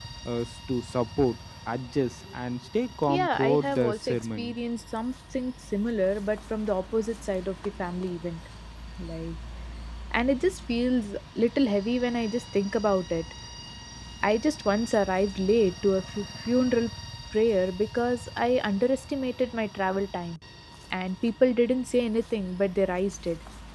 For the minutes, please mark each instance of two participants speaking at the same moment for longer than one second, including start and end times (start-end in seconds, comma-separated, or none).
3.1-4.6